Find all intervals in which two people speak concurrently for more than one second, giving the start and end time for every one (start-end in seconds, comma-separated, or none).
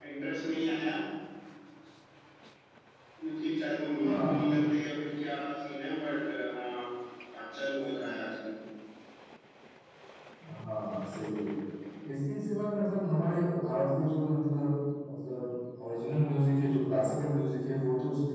none